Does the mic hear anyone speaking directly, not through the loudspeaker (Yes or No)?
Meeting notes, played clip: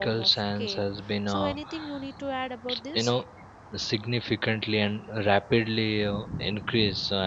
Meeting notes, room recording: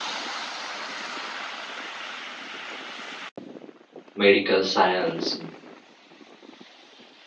Yes